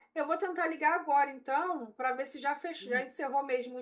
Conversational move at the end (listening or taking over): listening